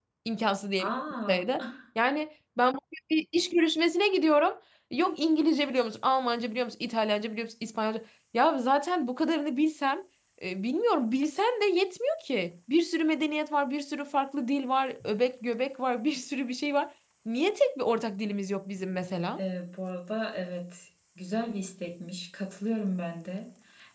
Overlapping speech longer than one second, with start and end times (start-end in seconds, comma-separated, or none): none